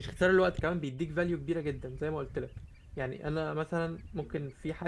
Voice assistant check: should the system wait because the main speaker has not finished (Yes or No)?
Yes